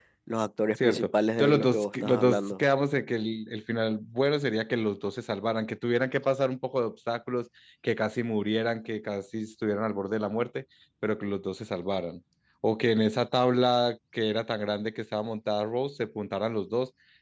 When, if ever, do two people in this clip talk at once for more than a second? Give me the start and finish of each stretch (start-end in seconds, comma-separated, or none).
0.8-2.4